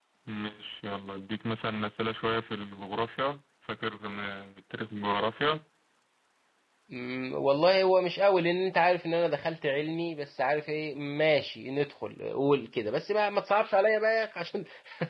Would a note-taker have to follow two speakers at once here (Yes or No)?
No